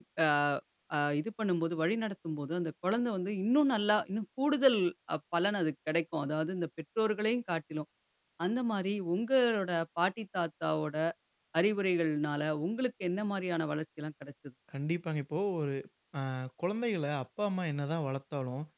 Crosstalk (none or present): none